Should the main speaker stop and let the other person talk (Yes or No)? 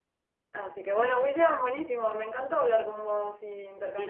Yes